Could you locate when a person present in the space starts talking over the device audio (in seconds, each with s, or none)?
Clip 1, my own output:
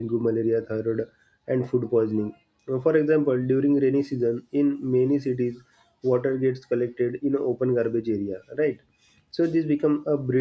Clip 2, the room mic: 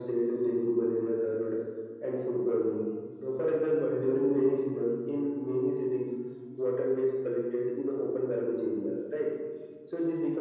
none